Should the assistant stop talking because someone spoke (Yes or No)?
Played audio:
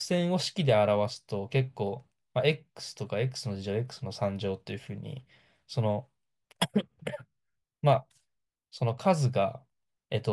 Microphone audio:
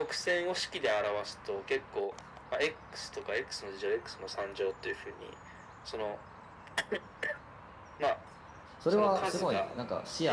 Yes